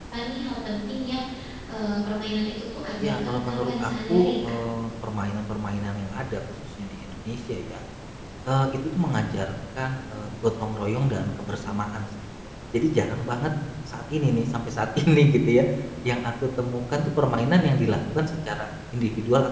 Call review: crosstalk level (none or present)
present